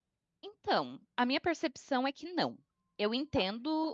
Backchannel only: Yes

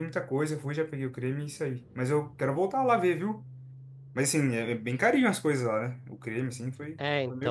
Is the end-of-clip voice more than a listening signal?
Yes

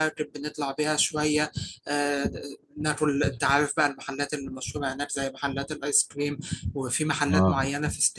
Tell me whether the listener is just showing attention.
Yes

